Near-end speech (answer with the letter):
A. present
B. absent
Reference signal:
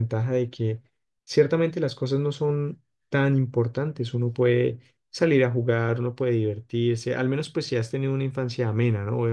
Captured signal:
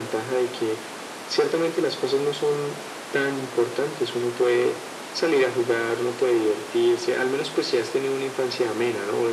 B